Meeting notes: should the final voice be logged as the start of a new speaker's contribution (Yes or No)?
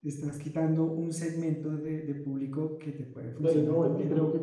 Yes